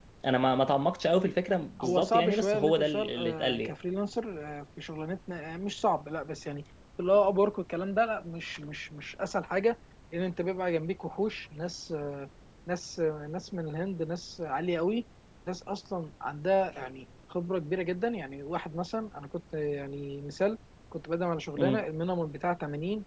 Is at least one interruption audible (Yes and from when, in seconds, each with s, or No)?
Yes, from 1.8 s